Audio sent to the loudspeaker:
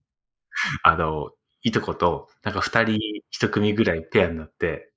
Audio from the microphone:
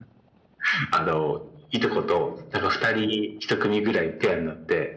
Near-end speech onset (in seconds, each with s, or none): none